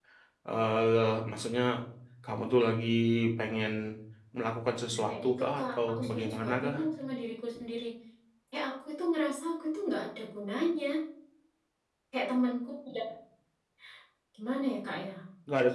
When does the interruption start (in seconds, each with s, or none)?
4.9 s